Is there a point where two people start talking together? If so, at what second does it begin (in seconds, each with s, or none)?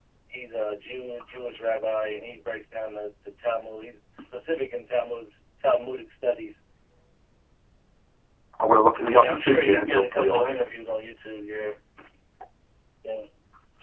9.1 s